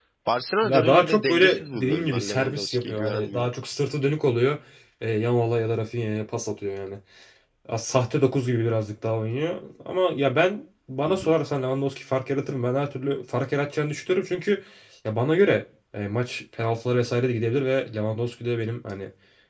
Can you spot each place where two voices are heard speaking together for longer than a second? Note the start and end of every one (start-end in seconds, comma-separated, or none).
0.6-3.5